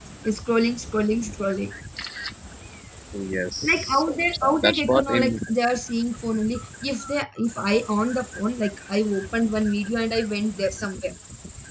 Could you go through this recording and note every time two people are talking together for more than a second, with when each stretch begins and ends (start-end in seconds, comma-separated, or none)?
3.6-5.4